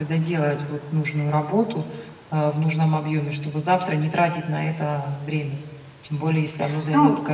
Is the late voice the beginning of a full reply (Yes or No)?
Yes